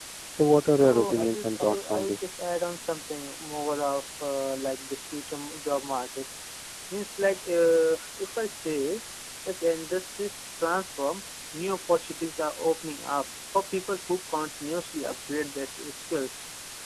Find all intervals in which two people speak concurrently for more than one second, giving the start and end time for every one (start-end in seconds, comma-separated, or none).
0.8-2.2